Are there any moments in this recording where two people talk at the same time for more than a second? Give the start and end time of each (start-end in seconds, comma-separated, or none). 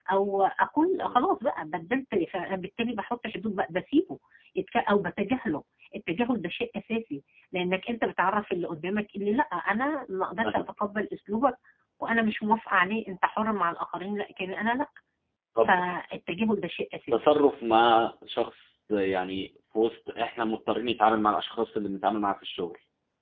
none